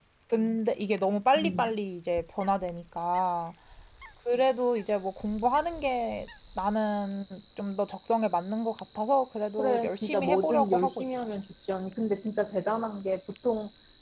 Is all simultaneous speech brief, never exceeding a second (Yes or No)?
No